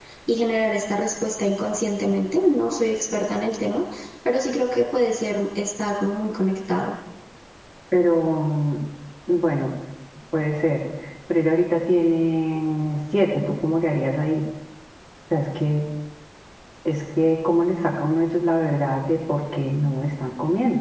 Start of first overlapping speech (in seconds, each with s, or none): none